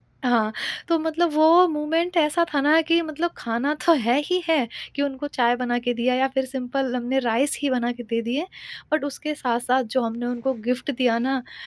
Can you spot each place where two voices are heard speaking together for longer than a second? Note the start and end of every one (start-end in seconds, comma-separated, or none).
none